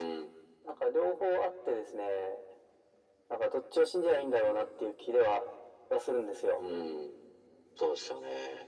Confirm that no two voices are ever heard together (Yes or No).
Yes